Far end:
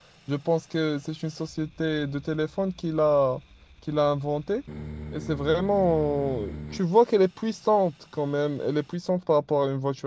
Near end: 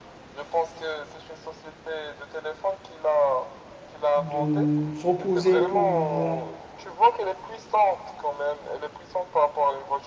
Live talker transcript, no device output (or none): de se reposer pour euh,